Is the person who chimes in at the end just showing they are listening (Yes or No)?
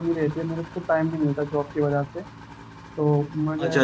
No